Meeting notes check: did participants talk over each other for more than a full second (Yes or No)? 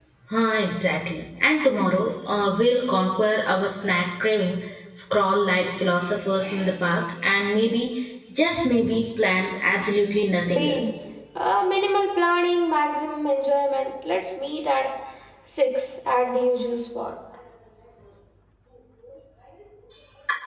No